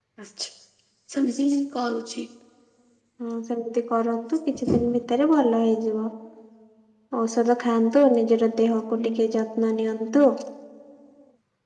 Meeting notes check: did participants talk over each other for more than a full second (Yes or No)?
No